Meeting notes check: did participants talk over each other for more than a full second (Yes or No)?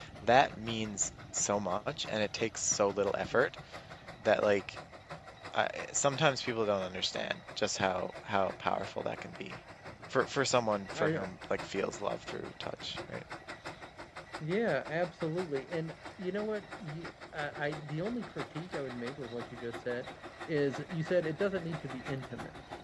No